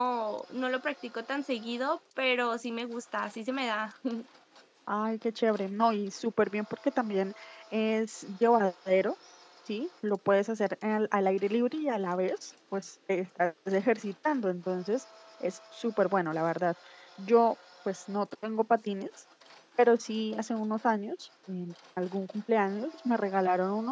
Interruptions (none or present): none